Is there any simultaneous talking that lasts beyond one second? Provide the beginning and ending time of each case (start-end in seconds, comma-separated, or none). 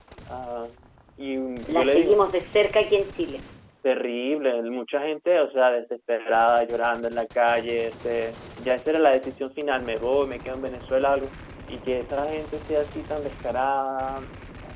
none